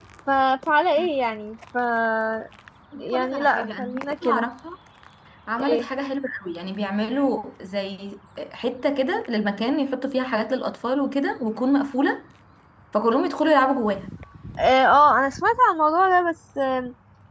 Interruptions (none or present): present